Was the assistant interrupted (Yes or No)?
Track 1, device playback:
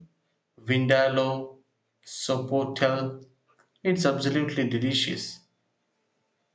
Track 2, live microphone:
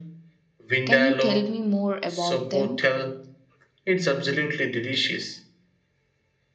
Yes